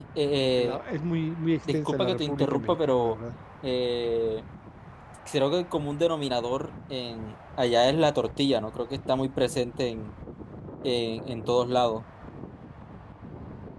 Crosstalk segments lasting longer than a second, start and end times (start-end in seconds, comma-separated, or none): 1.7-3.2